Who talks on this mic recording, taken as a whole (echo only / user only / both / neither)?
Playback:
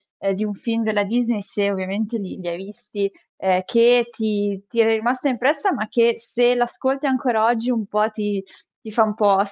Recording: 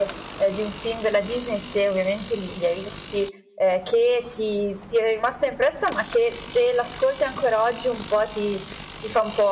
echo only